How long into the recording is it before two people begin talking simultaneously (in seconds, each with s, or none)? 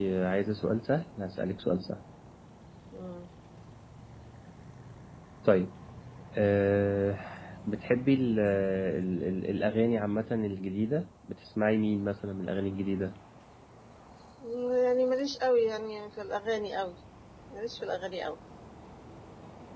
none